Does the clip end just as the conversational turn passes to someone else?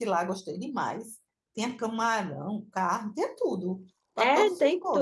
Yes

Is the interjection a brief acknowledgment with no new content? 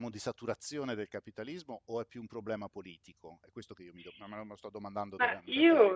No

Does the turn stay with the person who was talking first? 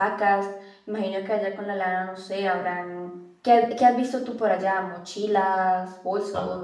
No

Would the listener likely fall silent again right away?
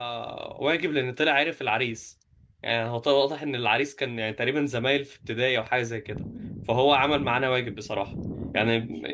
Yes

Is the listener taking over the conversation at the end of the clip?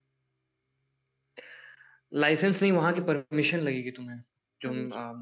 No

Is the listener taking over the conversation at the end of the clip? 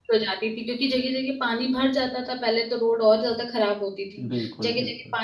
No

